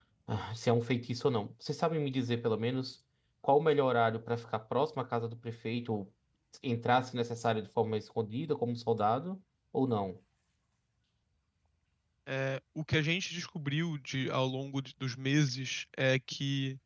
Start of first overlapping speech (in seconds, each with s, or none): none